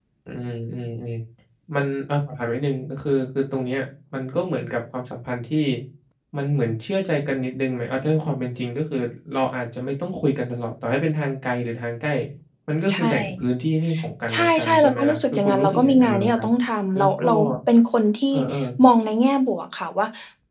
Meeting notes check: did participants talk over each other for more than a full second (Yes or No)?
Yes